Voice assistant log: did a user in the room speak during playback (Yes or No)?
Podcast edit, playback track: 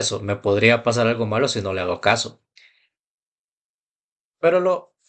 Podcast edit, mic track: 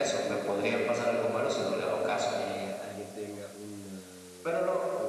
Yes